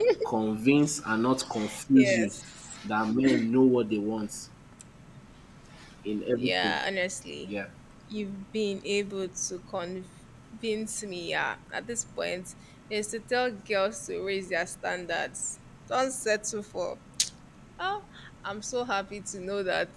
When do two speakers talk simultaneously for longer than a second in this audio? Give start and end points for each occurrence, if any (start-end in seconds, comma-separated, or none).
none